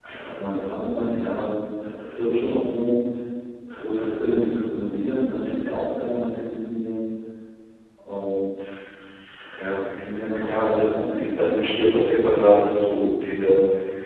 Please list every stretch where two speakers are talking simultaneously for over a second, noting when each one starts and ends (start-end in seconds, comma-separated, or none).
10.4-11.6